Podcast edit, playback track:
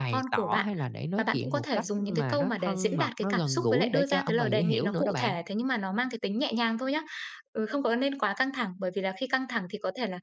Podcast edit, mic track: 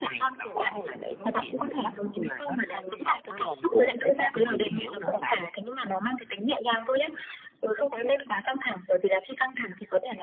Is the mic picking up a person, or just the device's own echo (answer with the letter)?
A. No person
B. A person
A